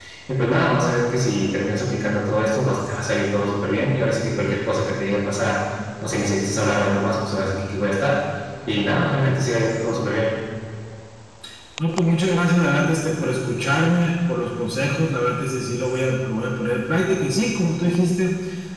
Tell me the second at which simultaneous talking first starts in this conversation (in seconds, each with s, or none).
none